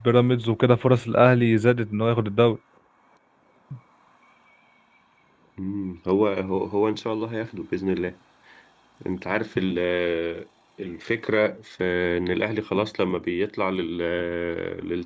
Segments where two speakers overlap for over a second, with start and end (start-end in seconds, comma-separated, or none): none